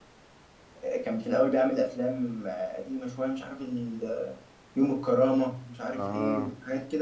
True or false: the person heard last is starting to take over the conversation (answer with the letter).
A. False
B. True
A